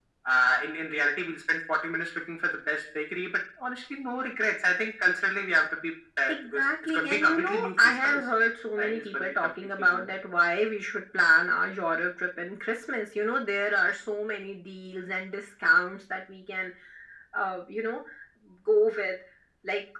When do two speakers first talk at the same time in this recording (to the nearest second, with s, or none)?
6 s